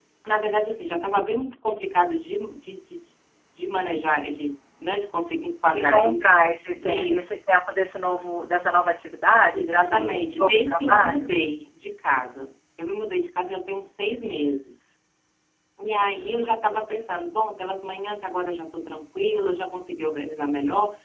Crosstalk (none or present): present